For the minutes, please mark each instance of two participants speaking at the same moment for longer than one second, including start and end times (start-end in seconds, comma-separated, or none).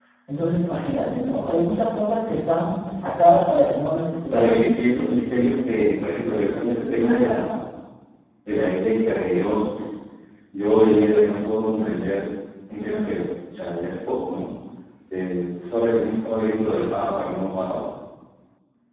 none